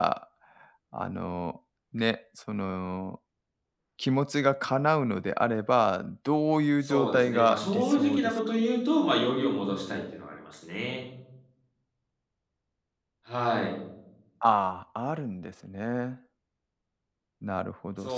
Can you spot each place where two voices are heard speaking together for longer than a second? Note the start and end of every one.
6.8-8.6

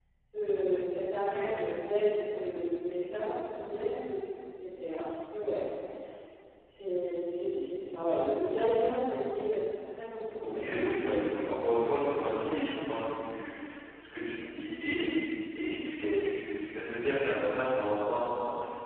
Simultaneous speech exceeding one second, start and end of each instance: 10.3-12.8

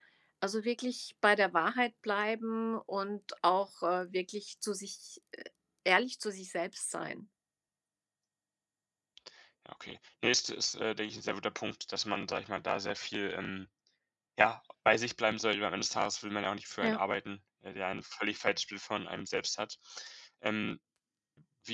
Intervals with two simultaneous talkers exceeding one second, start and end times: none

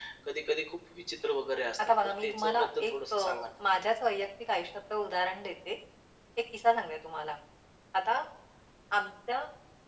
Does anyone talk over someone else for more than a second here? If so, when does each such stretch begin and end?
2.0-3.4

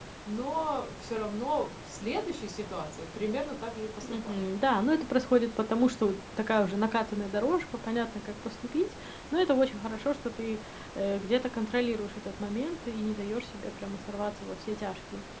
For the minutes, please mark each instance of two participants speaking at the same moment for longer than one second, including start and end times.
none

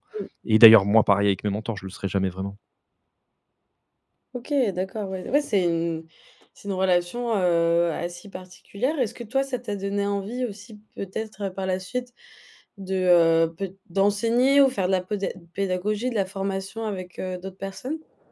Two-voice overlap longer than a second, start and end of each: none

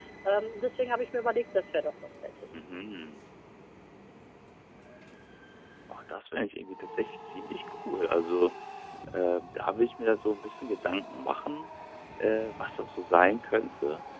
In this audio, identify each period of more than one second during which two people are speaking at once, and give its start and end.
none

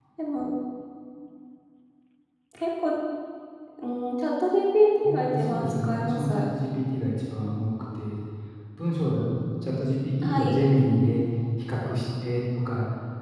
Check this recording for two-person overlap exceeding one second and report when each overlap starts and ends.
5.0-6.4

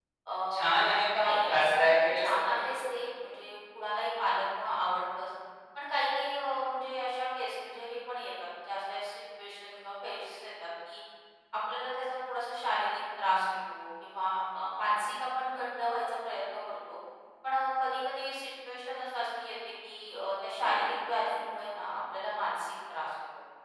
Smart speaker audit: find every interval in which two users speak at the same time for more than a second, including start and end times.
1.2-2.8

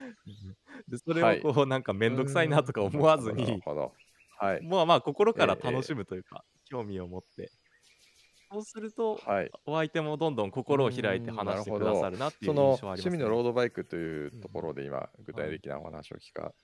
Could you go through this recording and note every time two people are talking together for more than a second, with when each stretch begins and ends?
2.1-3.6, 10.7-13.4

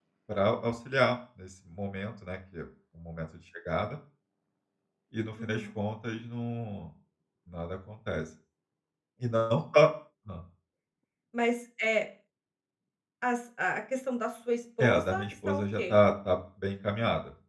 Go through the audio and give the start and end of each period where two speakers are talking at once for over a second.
14.8-16.0

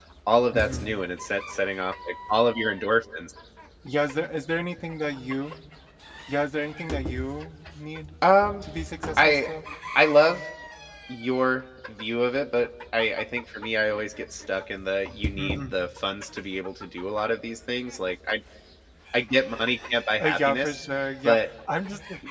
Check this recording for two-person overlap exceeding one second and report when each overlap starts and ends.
none

